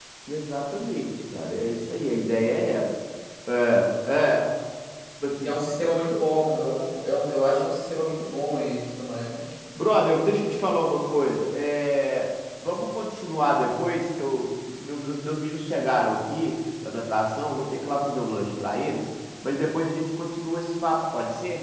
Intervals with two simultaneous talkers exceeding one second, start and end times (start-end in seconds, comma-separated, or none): none